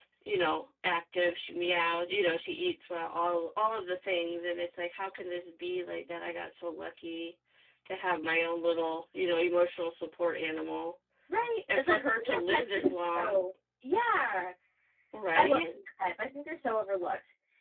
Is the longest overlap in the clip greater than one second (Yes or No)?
Yes